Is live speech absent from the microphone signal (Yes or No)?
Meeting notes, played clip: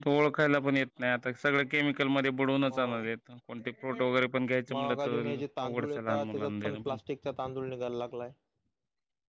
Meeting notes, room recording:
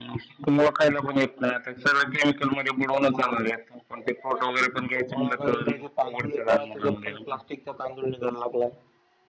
Yes